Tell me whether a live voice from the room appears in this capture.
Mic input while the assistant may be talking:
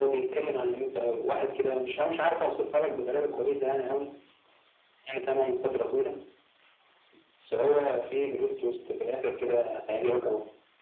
No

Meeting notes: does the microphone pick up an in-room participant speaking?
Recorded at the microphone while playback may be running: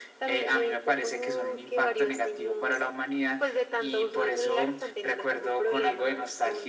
No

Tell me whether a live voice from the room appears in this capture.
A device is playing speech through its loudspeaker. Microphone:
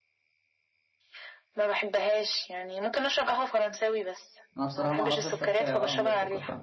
Yes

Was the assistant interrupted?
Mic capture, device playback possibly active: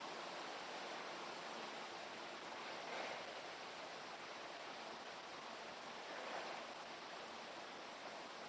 No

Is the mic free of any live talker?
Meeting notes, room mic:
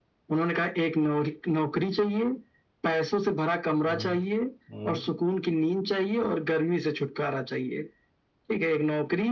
No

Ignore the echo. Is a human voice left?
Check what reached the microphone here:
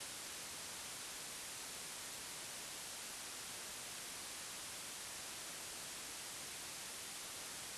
No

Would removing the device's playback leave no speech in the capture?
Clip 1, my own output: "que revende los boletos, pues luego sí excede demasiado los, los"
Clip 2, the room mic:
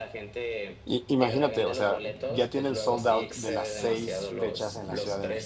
No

